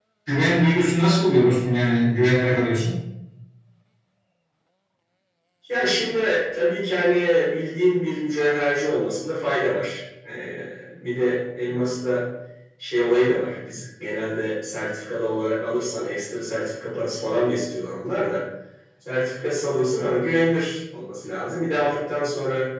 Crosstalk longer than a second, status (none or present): none